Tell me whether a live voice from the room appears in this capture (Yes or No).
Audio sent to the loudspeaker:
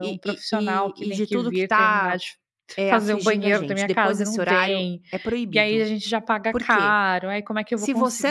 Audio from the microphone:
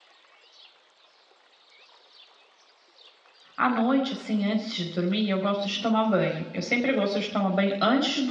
Yes